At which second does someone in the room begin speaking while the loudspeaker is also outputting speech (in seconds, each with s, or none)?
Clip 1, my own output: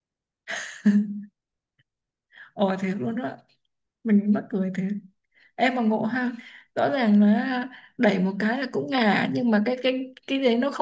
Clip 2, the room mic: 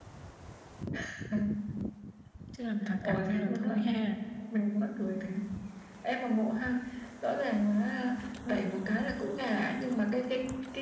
2.5 s